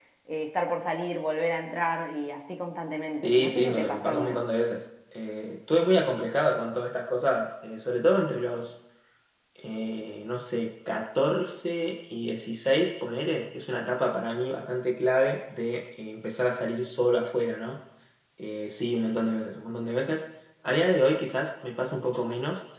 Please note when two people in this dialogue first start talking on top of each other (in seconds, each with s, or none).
3.2 s